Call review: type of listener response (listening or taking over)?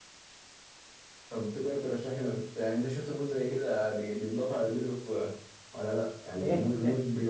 listening